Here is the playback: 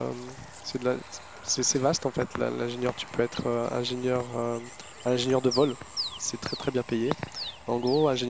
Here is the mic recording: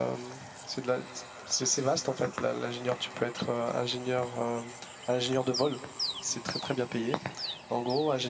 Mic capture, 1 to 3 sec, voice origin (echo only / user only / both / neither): echo only